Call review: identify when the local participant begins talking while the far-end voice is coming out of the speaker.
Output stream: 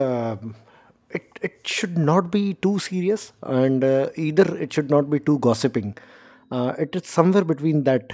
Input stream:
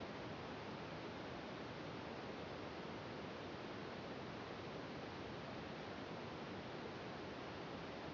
none

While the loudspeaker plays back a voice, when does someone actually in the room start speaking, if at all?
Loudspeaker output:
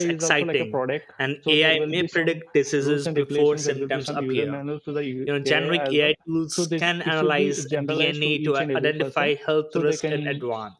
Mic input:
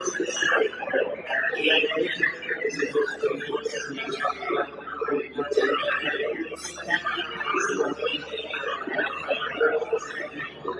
none

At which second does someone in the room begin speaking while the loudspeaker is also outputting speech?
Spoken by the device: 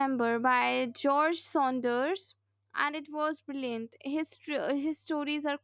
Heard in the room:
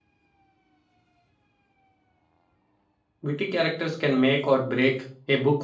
3.2 s

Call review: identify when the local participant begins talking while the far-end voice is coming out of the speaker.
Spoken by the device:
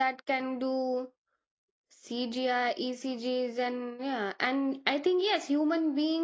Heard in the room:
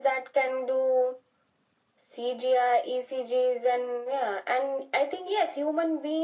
none

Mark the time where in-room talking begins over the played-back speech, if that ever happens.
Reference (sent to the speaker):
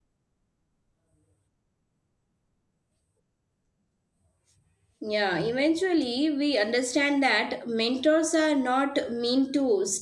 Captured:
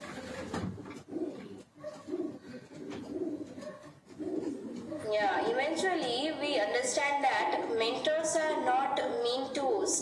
none

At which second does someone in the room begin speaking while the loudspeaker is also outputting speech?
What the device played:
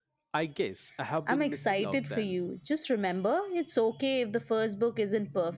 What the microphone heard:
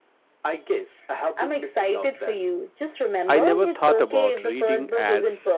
3.3 s

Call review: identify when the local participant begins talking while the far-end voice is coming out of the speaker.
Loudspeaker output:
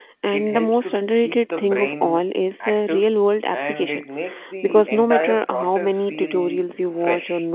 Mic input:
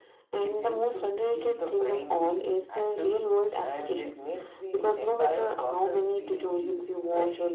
none

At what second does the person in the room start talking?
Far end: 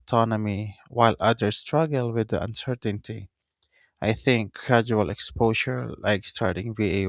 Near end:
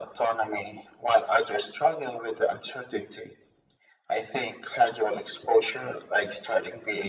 none

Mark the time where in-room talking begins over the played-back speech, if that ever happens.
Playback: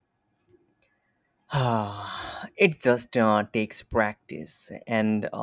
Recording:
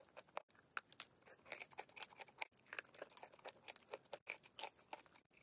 none

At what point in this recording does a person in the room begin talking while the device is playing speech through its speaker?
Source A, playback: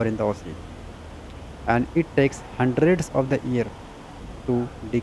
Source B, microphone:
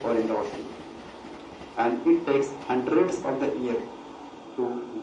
none

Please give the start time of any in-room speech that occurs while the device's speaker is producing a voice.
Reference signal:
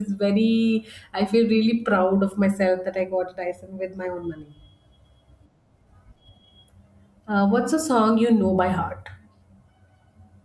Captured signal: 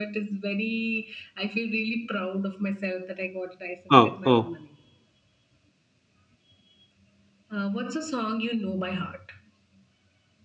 3.9 s

